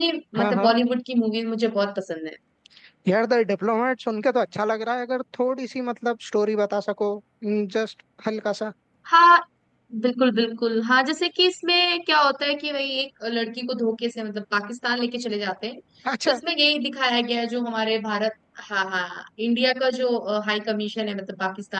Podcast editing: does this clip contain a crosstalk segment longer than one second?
No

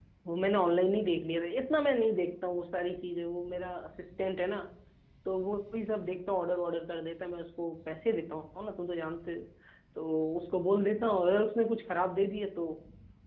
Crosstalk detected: No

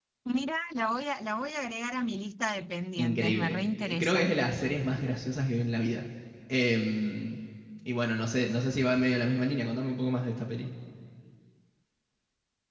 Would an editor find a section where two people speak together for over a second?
Yes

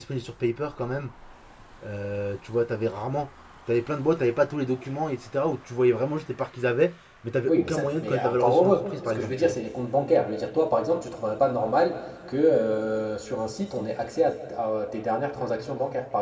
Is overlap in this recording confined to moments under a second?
No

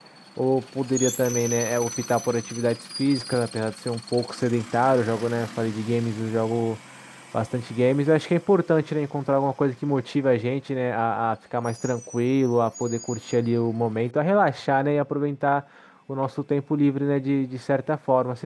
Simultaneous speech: No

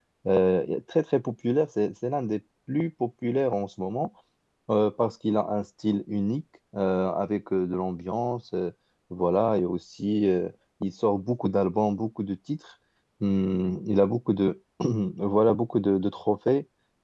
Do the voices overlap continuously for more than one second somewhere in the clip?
No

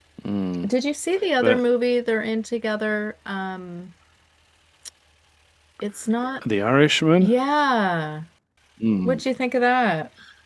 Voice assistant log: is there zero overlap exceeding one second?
Yes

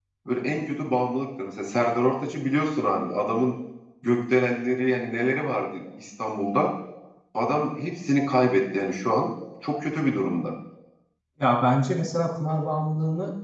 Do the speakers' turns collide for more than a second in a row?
No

